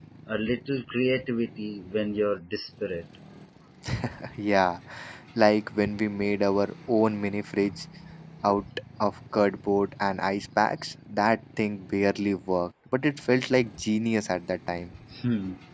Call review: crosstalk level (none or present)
none